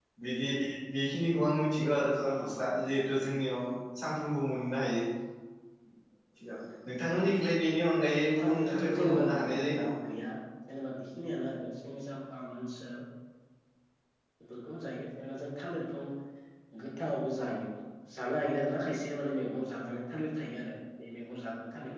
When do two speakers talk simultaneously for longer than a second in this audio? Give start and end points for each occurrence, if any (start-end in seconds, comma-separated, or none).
8.4-9.9